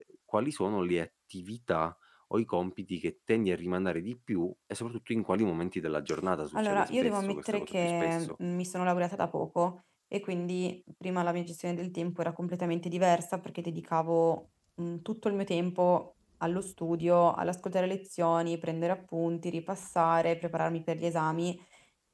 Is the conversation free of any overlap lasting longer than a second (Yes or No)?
No